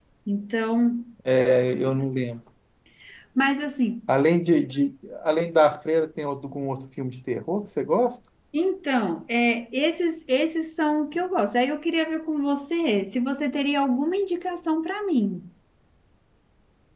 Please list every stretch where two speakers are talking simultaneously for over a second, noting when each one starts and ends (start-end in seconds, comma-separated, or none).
none